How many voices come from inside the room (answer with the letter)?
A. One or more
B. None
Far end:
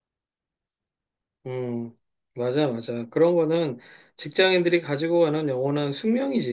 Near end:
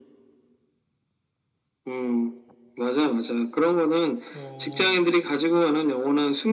A